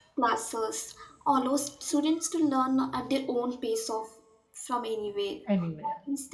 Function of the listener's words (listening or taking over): listening